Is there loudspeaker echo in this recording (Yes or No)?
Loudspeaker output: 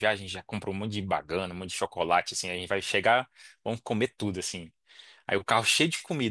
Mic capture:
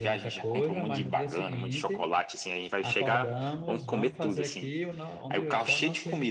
Yes